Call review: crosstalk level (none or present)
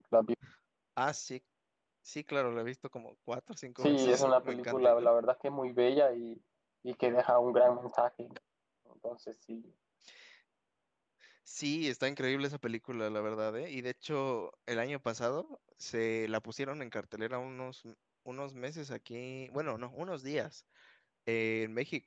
present